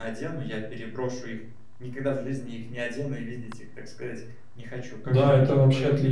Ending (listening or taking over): taking over